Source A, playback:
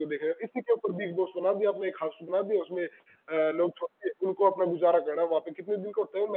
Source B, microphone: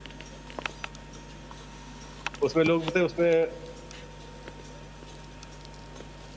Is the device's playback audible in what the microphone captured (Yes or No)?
No